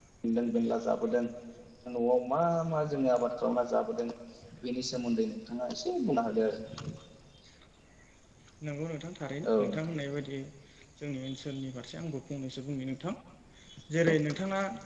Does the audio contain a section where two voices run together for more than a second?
No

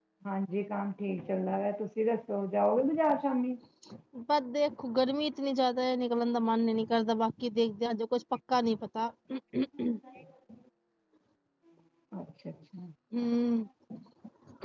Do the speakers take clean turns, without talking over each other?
Yes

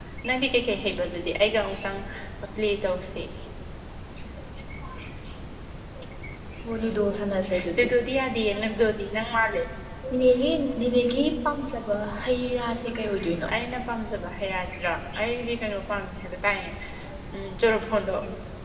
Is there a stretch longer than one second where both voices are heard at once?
No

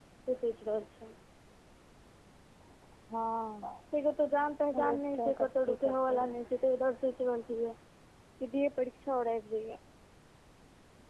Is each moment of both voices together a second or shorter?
No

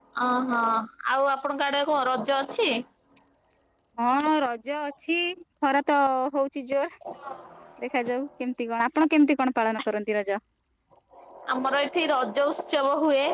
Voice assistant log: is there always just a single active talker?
Yes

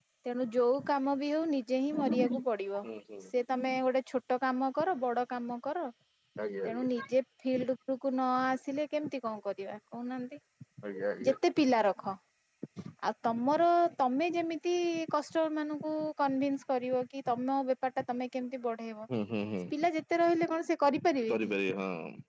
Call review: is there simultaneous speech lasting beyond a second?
No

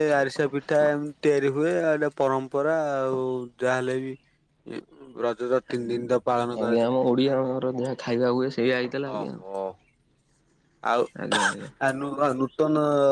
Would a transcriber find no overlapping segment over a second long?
Yes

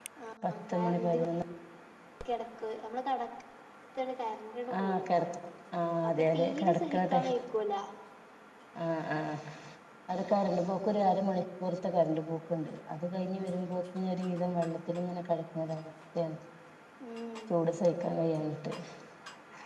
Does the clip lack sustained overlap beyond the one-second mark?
No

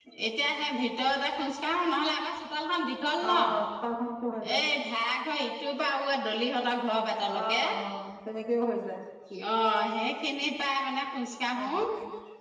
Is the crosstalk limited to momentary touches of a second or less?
Yes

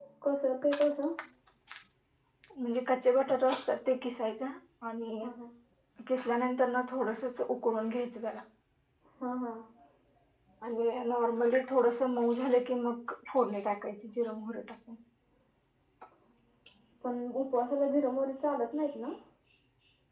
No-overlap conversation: Yes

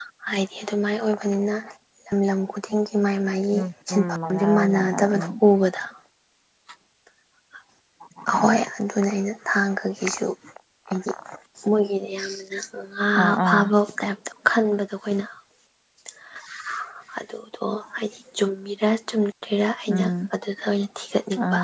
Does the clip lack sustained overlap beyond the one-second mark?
No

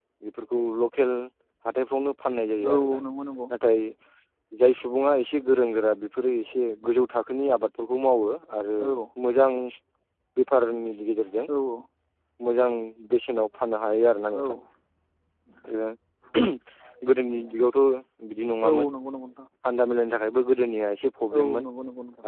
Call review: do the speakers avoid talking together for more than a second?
Yes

